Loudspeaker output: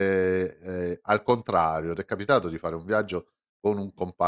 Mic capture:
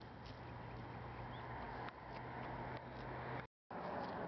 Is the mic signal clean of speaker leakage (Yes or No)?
Yes